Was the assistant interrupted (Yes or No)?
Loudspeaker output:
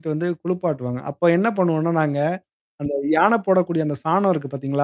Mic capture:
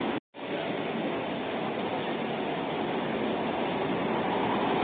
No